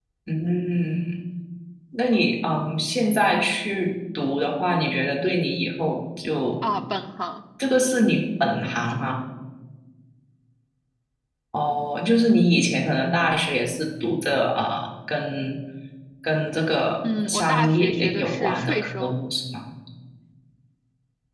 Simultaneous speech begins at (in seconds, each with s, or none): 17.0 s